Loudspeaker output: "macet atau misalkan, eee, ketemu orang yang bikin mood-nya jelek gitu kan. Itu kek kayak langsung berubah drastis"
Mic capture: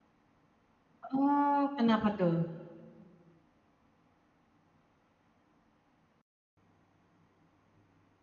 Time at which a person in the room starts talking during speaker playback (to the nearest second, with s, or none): 1 s